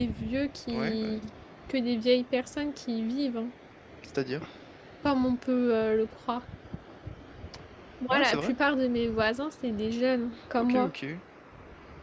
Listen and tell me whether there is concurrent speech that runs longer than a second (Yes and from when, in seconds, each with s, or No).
No